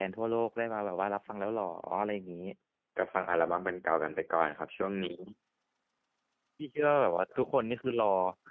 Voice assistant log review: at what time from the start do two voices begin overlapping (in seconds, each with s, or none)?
none